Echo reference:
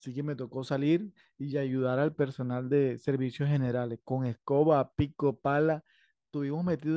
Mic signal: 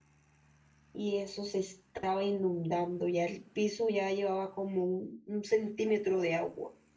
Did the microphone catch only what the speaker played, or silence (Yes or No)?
No